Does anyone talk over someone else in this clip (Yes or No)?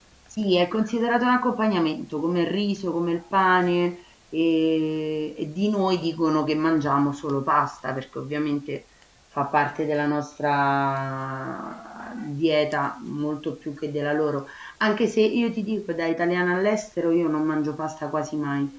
No